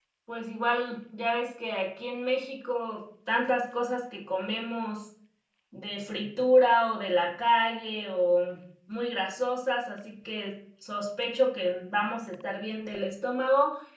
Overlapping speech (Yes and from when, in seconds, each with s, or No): No